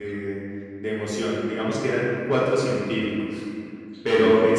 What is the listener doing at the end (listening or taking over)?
listening